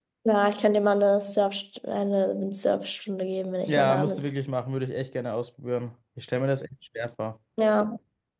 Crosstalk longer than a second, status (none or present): none